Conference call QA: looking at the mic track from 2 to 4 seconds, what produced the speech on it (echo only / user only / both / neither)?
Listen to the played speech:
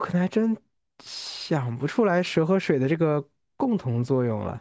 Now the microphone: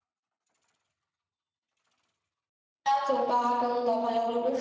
user only